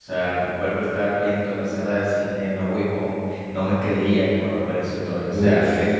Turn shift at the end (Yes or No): No